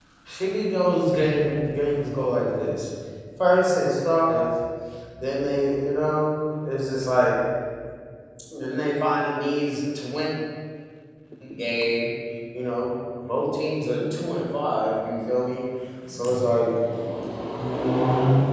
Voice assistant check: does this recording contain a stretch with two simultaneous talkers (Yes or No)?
No